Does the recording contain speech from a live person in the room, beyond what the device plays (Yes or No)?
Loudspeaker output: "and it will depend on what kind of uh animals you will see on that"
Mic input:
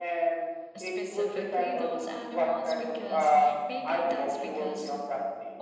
Yes